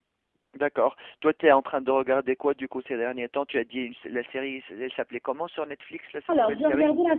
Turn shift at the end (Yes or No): Yes